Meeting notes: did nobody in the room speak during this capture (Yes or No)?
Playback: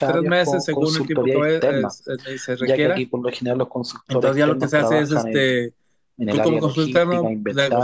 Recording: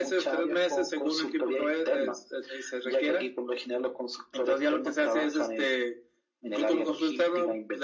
Yes